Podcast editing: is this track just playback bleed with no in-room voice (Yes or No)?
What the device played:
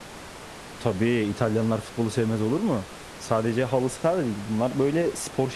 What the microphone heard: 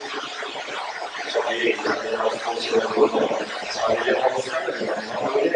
Yes